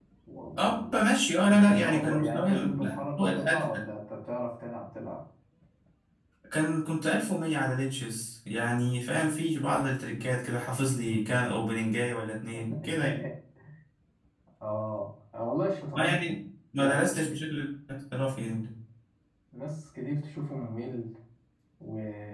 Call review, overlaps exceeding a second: present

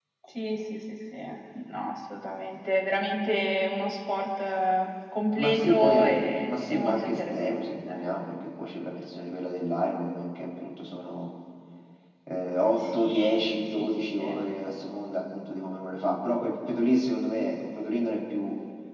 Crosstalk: present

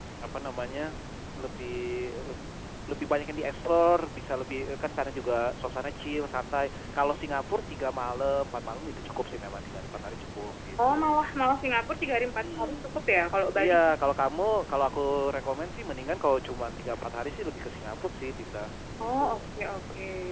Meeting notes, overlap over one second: none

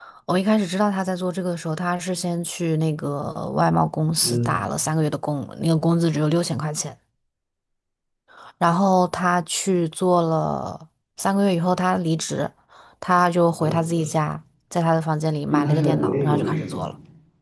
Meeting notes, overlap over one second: present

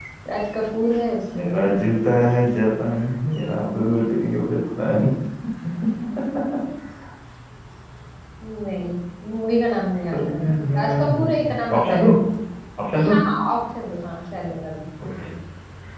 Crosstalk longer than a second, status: present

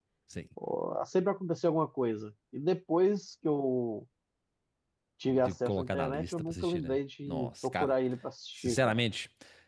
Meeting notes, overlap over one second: present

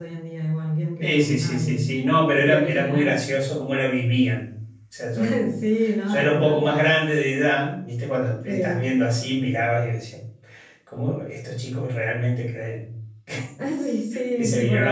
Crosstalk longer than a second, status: present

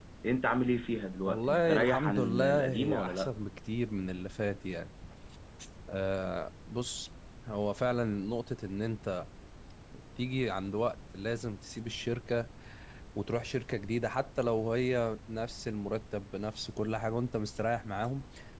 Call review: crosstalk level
present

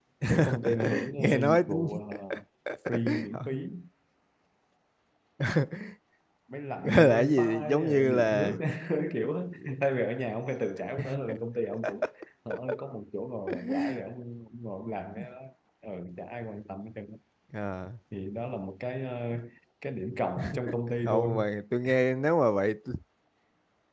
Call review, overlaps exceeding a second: present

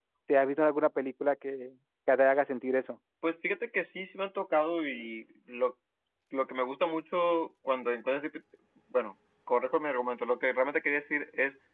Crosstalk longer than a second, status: none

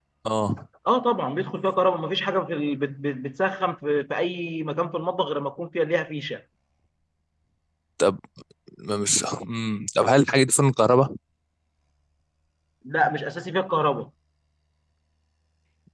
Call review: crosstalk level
none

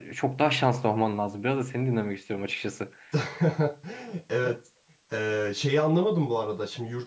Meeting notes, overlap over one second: none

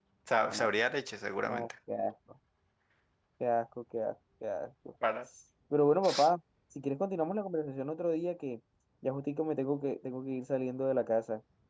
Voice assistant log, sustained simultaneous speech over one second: none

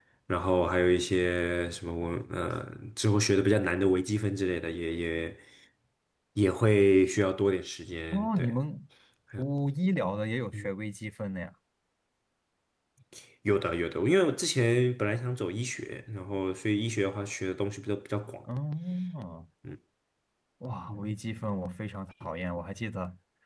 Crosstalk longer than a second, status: none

